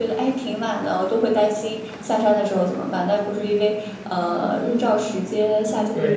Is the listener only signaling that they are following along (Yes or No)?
No